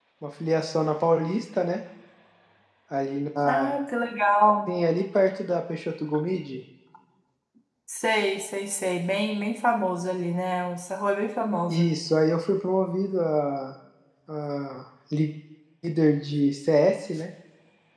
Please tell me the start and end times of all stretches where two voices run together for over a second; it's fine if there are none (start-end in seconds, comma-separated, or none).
none